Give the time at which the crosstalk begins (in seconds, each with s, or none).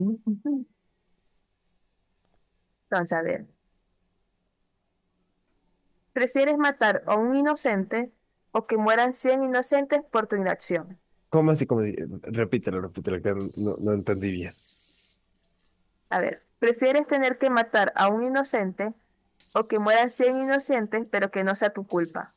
none